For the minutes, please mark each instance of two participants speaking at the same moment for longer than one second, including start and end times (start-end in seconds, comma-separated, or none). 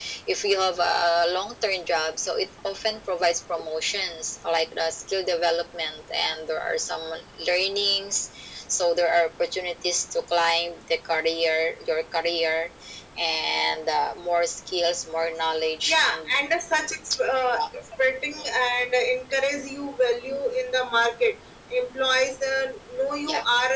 none